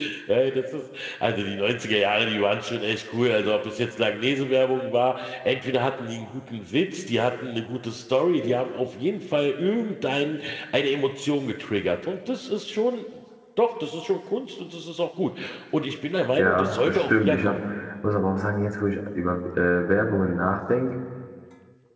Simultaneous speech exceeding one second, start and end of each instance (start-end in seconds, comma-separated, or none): 16.3-17.6